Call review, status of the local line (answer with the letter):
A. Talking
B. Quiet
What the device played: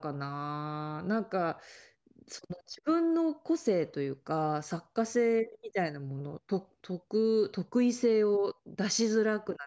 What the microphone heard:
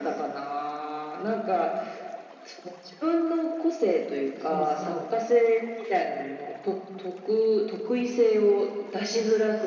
A